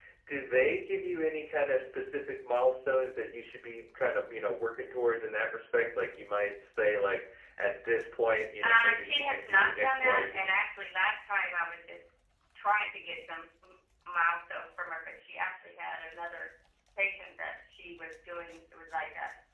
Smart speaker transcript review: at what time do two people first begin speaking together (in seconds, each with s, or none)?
8.6 s